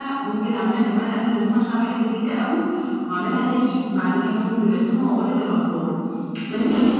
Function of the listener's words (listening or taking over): listening